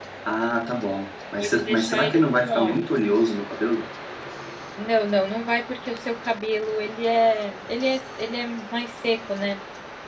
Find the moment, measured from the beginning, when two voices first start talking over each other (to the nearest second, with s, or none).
1 s